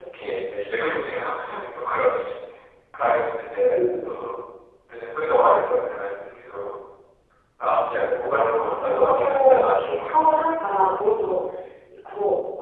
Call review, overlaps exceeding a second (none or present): present